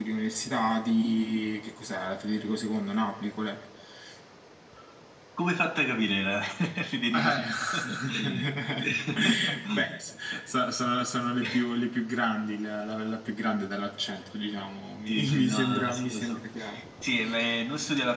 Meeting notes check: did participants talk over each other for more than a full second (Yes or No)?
Yes